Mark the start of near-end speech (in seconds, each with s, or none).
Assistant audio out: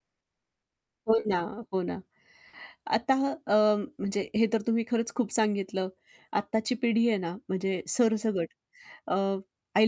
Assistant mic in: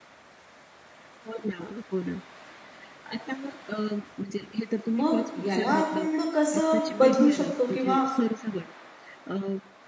5.0 s